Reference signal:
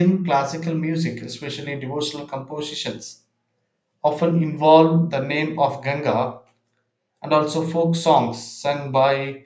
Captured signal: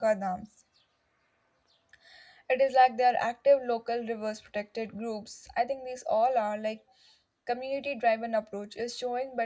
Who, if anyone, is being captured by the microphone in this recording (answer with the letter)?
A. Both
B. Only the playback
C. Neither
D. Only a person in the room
D